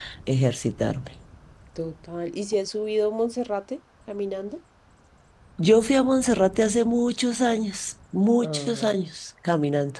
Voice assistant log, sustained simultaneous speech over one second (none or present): none